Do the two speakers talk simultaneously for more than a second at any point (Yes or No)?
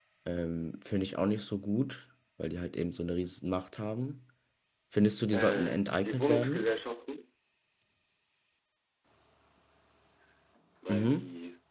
Yes